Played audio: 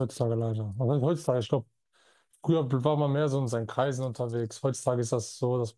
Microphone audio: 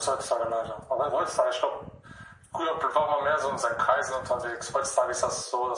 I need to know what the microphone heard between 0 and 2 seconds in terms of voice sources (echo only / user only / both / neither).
echo only